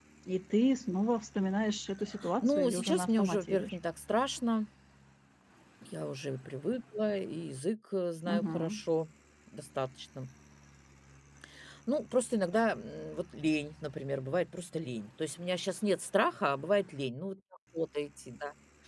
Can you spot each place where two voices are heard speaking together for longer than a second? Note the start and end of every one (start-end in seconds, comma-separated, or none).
2.4-3.8